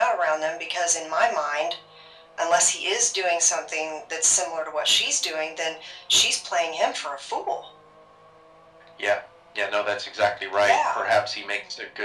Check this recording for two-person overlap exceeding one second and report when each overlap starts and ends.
none

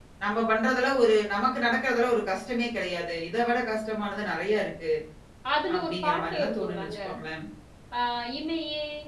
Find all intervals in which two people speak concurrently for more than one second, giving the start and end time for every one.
5.8-7.0

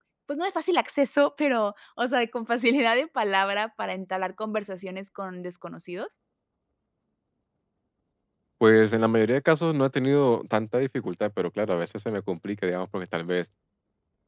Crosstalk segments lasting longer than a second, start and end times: none

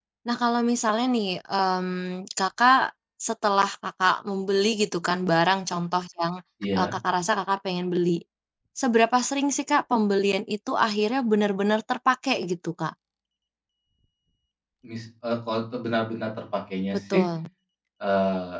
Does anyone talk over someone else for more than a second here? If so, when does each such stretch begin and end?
none

